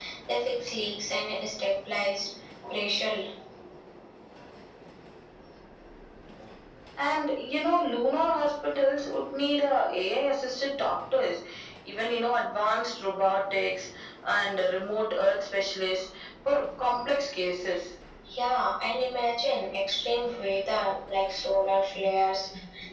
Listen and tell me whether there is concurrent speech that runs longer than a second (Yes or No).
No